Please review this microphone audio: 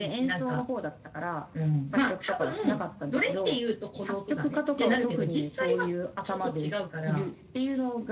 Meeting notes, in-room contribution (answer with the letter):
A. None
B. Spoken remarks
B